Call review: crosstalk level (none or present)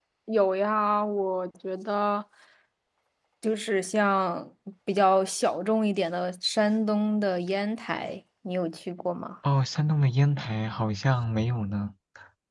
none